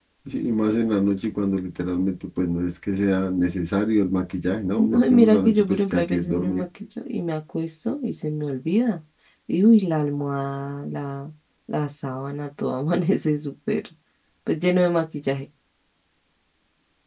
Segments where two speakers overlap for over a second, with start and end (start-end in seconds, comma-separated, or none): 4.8-6.6